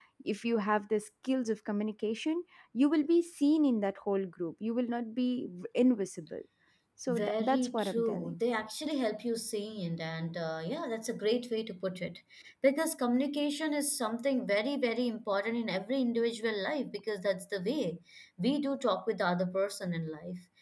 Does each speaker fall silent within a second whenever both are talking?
No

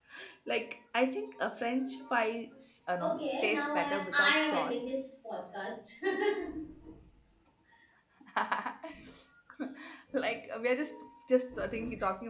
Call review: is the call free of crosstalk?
No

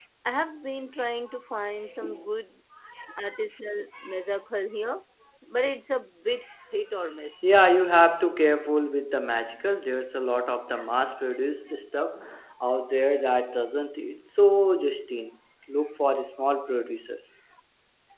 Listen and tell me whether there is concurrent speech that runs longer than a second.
No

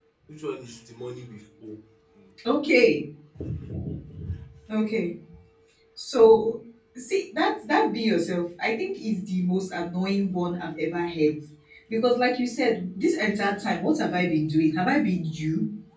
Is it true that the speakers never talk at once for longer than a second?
Yes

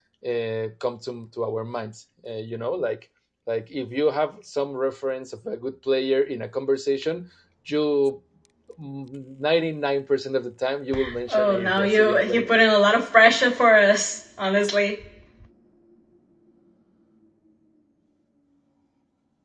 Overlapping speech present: Yes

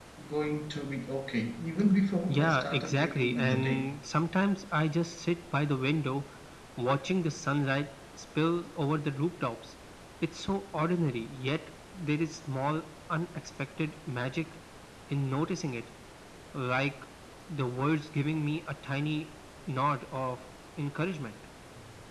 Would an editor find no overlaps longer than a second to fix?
No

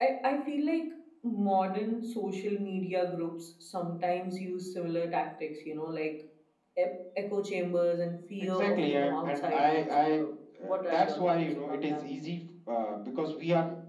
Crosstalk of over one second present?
Yes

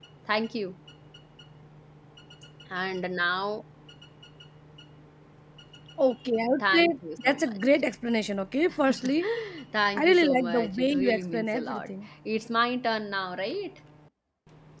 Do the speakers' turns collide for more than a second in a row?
Yes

